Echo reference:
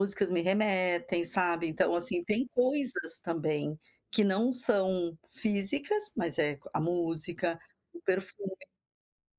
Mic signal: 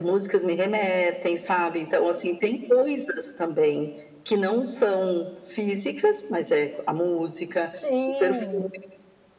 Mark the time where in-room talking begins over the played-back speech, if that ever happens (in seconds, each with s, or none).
7.7 s